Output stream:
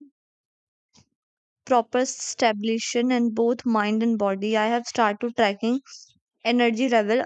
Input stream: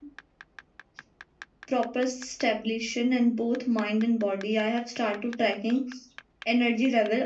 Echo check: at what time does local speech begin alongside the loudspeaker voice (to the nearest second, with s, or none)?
none